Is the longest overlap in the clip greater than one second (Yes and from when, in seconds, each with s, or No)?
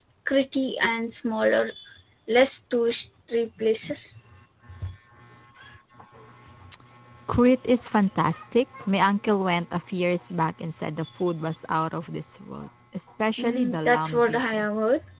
Yes, from 13.4 s